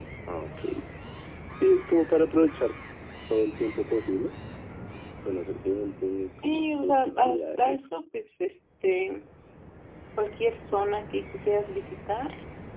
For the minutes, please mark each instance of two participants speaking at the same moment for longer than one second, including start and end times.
6.4-7.8

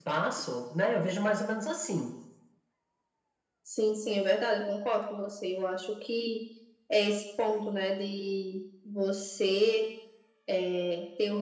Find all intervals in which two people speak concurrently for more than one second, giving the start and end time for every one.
none

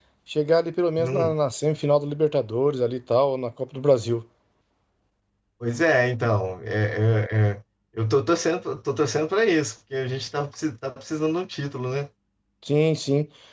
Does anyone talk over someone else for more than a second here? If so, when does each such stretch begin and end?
none

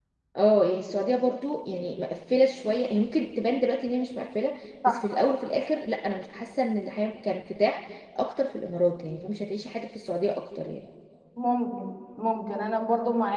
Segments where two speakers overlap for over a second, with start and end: none

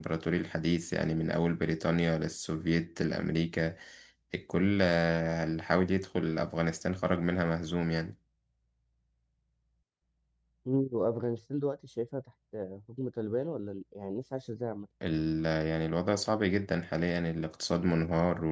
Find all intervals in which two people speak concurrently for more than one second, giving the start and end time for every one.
none

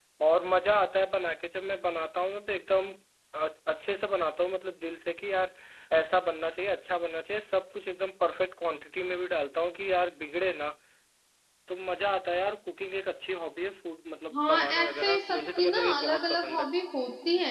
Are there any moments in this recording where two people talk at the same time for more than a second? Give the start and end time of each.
14.3-16.7

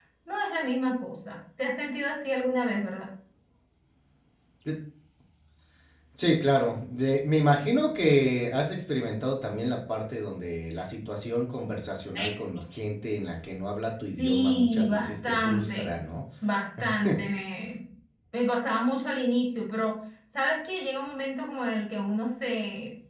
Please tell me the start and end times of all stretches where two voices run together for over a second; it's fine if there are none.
14.2-15.9

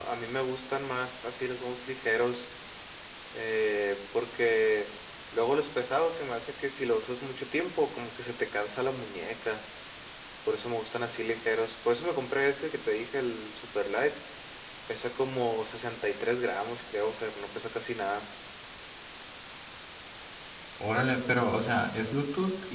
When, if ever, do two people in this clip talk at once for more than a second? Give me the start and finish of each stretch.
none

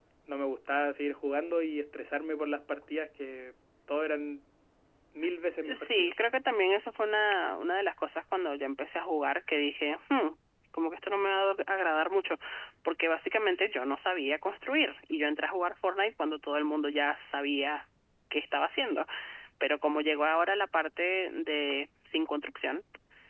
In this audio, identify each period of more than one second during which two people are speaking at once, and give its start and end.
none

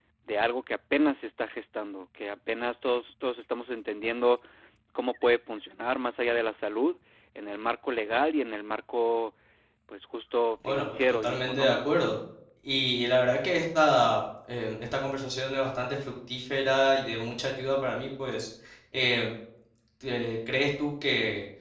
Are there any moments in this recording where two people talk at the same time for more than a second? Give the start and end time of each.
10.7-12.0

